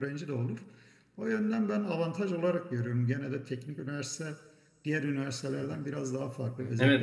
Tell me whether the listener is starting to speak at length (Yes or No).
Yes